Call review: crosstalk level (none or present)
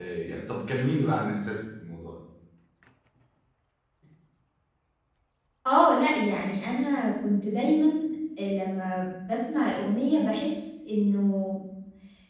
none